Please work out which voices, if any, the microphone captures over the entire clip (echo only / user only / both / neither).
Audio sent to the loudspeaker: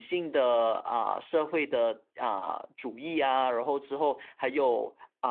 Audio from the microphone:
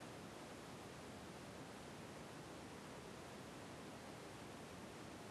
neither